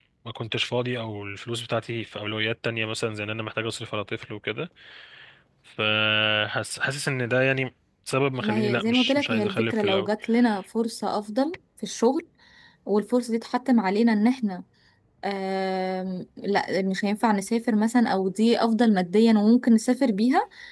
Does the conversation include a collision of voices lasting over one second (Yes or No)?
Yes